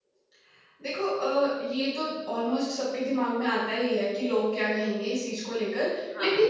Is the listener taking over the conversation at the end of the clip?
No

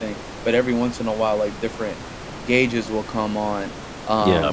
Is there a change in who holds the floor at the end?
No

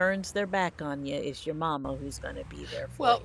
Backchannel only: No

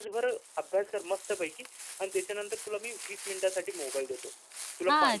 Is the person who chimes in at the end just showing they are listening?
No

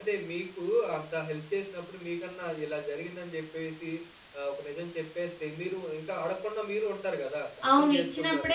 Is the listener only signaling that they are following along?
No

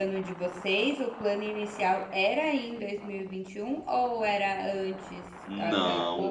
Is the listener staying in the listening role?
No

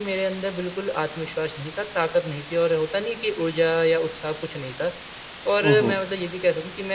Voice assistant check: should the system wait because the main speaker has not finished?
Yes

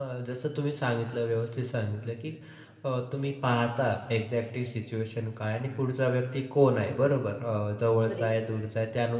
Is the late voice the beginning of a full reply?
No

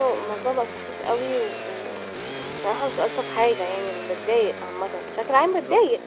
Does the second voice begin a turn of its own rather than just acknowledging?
Yes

